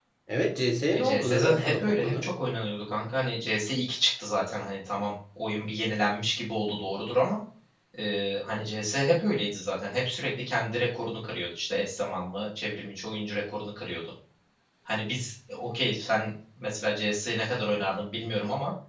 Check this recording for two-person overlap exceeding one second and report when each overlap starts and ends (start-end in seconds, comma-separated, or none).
0.9-2.3